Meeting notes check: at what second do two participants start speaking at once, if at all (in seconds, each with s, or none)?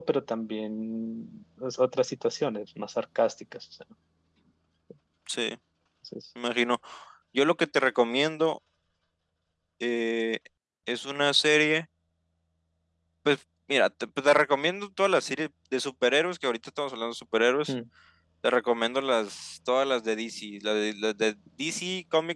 none